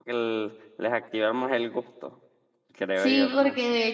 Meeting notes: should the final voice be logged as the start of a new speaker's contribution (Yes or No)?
Yes